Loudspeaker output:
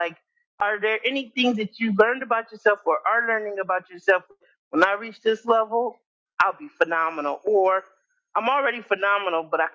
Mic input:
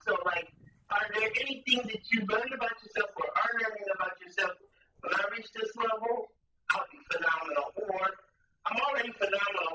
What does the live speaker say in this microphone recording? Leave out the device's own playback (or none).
none